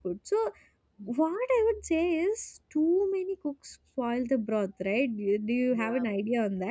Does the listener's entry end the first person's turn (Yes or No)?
No